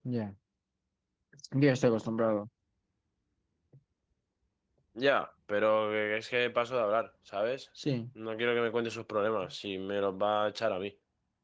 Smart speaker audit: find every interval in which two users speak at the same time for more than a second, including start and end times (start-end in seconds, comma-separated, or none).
none